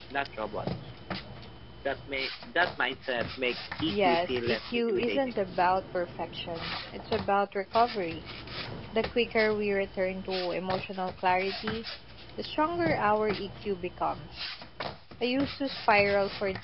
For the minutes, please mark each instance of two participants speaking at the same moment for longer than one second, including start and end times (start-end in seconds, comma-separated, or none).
3.9-5.2